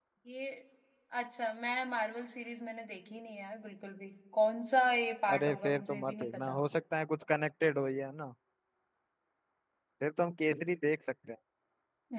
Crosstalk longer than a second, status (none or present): present